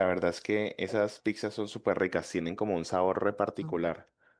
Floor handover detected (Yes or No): Yes